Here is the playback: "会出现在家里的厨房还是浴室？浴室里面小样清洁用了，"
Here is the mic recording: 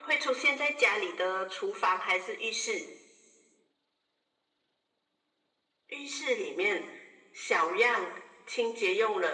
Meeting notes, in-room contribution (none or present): none